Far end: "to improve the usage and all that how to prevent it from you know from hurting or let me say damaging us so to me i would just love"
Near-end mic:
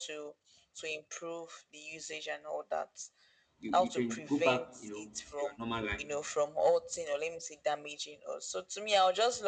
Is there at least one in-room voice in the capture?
Yes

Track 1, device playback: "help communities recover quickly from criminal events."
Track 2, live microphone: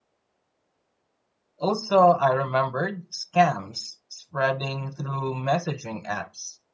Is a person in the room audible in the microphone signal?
Yes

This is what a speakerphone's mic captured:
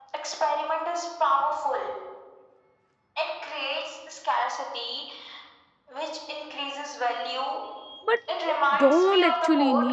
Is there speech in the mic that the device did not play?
Yes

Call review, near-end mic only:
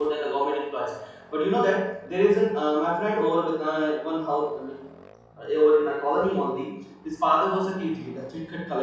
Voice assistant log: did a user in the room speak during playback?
Yes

